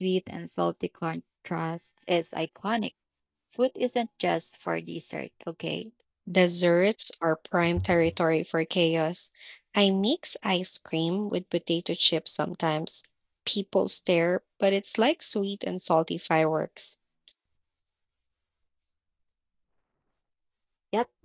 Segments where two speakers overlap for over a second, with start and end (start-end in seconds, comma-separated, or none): none